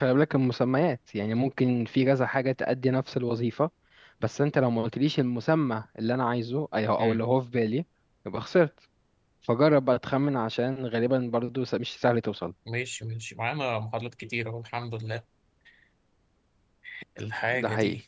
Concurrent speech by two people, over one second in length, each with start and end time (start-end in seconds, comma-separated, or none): none